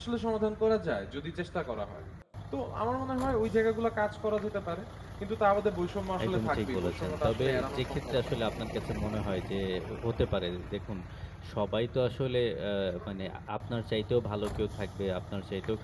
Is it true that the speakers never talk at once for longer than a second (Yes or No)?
No